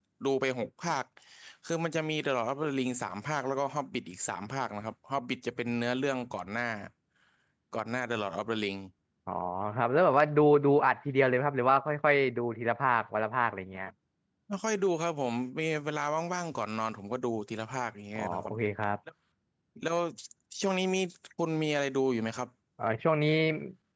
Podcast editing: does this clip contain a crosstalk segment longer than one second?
No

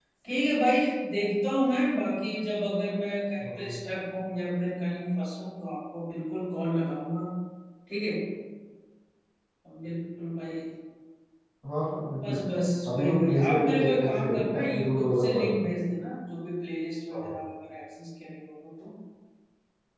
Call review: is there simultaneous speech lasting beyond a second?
Yes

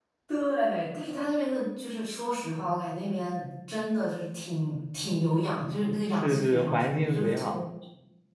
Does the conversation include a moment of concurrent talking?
Yes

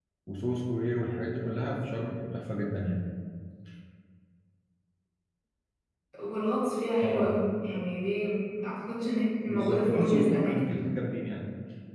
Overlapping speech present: Yes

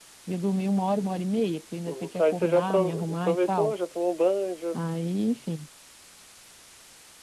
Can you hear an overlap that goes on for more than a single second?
Yes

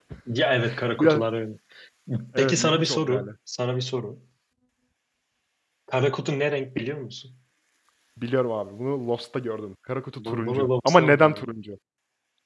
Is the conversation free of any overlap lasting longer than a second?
No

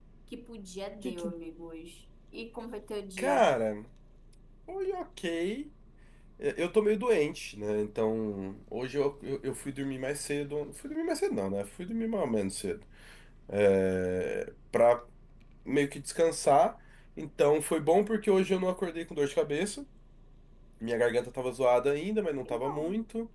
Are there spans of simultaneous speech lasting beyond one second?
No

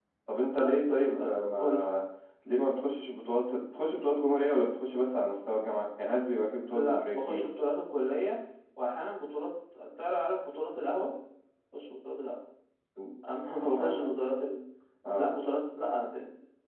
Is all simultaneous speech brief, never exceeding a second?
No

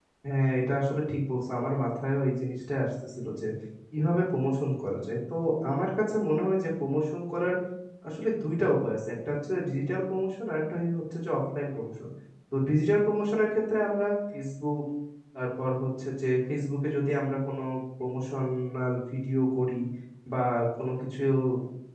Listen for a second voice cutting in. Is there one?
No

